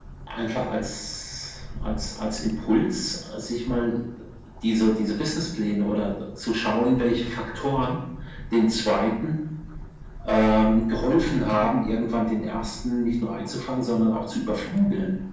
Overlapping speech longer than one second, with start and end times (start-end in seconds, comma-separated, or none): none